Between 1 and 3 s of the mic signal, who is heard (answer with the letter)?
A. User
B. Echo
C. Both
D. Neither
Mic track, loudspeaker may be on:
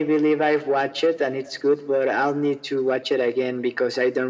B